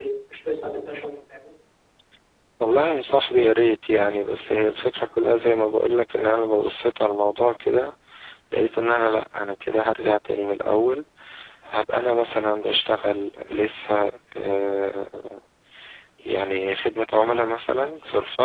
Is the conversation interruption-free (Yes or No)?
Yes